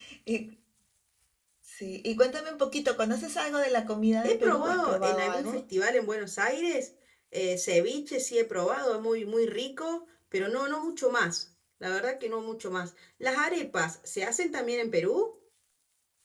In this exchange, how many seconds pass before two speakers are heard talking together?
4.2 s

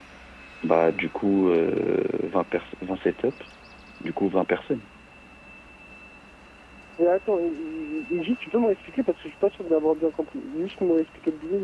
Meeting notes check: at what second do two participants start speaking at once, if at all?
none

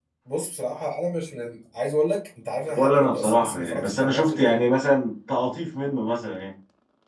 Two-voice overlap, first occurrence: 2.7 s

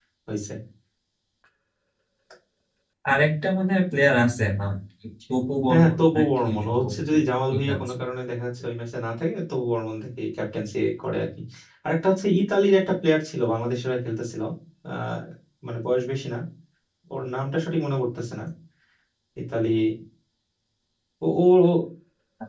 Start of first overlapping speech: 5.7 s

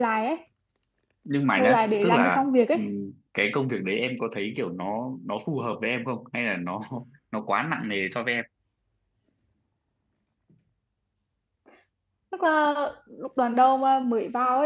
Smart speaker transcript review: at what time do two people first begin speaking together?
1.6 s

